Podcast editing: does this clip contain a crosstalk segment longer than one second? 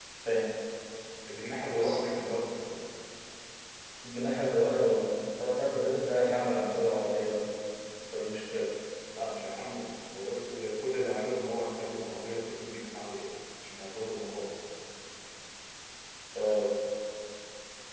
No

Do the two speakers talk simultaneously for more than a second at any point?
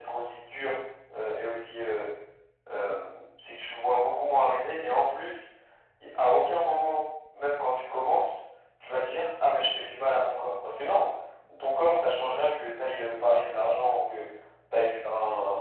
No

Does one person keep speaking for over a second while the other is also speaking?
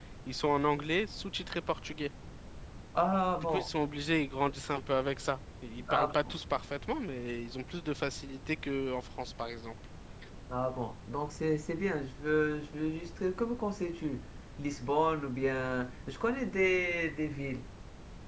No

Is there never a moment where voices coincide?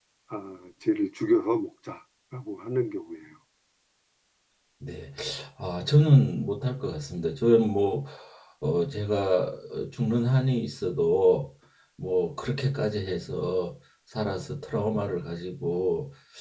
Yes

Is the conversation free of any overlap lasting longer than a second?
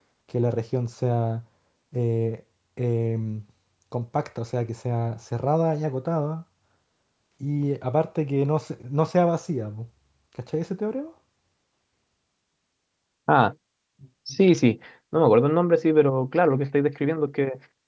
Yes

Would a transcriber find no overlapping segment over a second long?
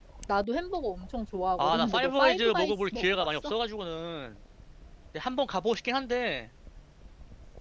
No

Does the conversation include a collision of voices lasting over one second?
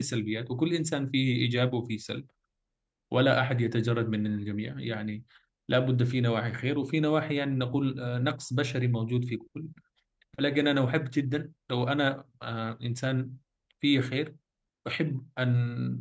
No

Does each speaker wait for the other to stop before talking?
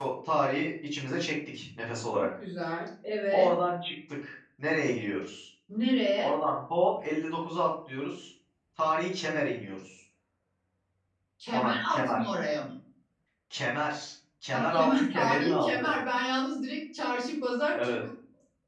No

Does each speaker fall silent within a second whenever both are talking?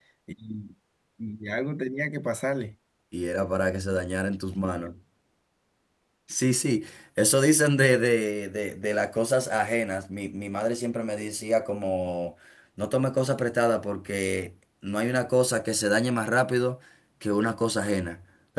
Yes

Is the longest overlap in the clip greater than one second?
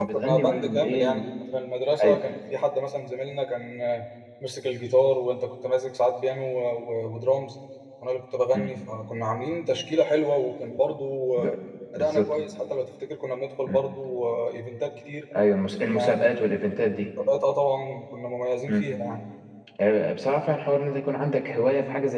Yes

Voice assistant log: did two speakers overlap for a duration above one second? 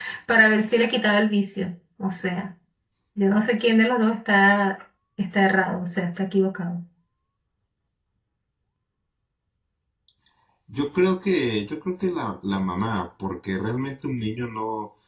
No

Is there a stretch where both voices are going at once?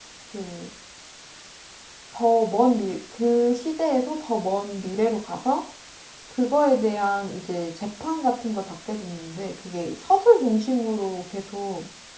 No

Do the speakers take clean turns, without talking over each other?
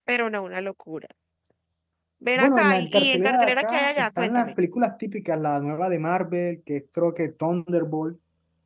No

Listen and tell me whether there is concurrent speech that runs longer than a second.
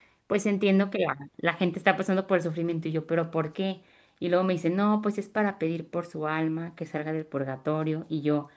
No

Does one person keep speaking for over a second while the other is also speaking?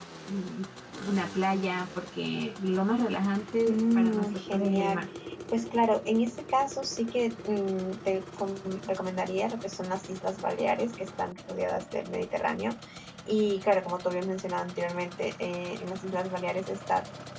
Yes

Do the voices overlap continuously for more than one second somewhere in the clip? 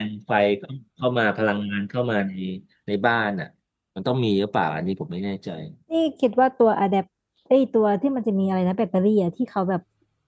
No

